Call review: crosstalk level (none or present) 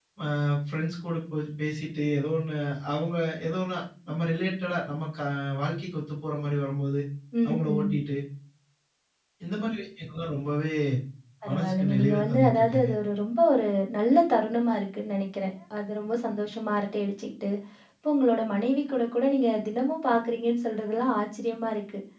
present